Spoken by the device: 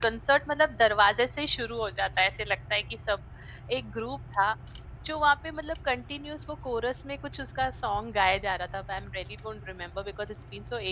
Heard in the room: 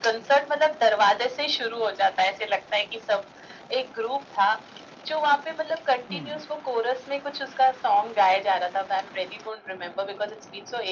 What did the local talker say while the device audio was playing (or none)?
करेक्ट।